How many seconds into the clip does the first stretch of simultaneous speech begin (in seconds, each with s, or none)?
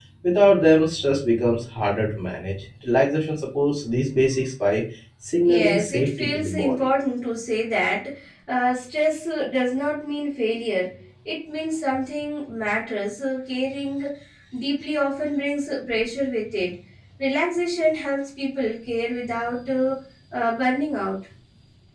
5.4 s